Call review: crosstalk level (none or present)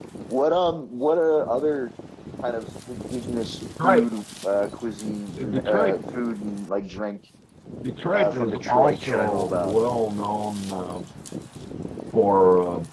present